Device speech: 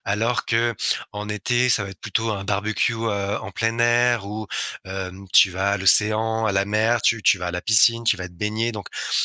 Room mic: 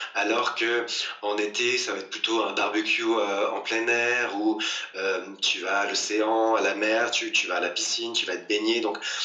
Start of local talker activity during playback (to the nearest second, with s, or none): none